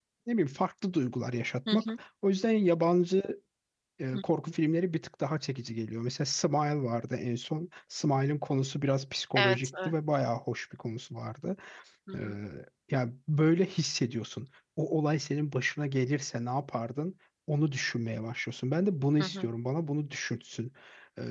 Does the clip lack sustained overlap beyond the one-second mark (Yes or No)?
Yes